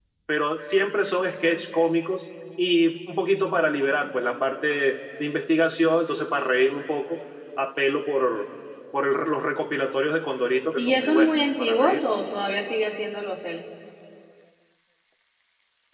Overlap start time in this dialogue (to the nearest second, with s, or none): 11 s